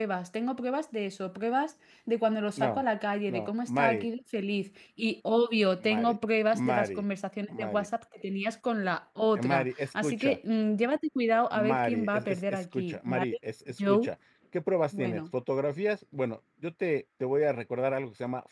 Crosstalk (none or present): present